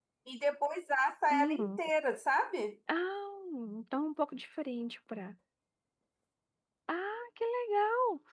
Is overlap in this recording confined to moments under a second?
Yes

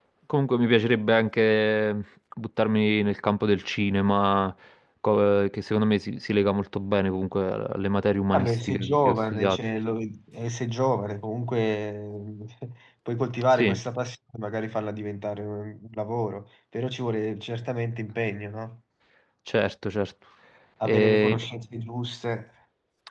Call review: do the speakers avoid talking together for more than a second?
No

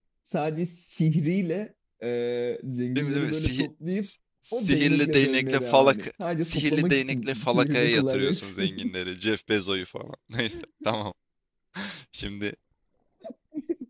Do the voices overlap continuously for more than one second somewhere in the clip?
Yes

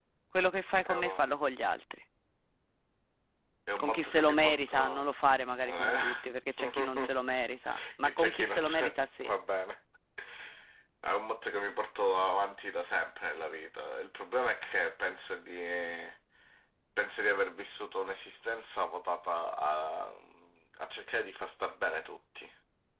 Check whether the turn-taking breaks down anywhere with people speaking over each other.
Yes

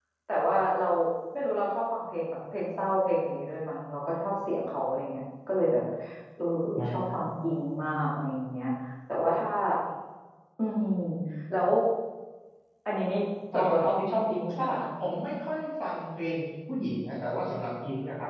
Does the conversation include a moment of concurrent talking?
Yes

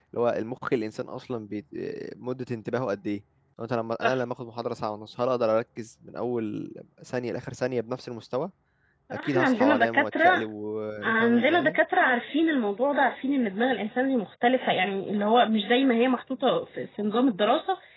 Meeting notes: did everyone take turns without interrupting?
No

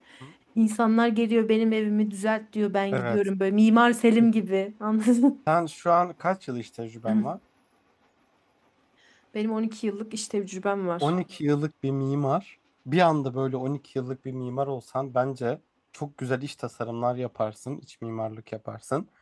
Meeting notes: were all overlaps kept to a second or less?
Yes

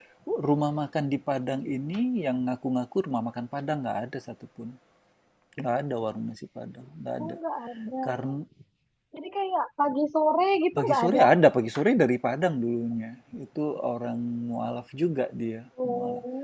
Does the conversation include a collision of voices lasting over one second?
No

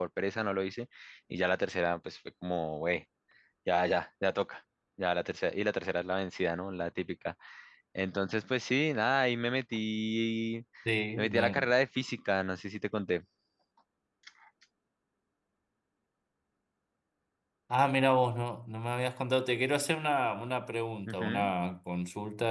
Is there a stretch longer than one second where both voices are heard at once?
No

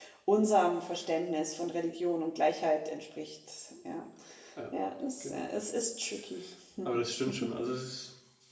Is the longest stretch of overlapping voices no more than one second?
Yes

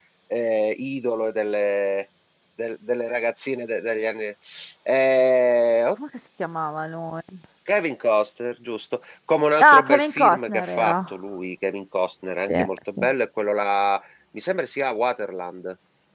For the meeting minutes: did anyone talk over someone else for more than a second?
Yes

